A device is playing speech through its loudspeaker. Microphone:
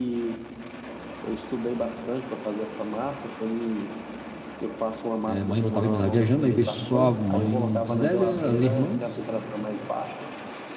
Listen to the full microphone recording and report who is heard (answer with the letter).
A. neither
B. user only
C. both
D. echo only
C